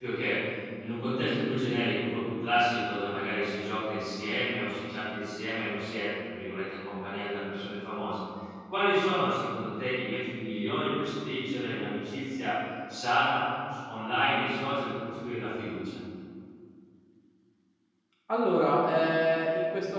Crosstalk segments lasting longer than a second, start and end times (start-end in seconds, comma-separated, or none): none